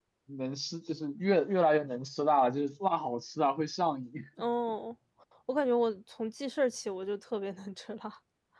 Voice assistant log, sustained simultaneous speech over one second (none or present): none